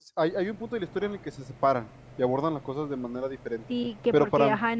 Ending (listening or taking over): taking over